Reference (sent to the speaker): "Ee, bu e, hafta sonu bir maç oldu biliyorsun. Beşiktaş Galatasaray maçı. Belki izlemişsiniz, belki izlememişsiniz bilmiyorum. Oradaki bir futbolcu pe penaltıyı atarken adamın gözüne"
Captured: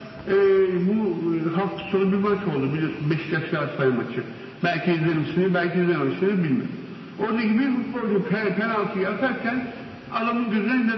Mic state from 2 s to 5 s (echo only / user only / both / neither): echo only